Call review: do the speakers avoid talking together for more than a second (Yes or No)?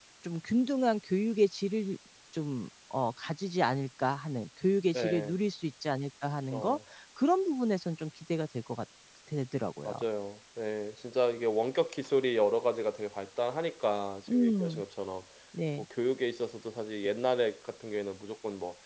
Yes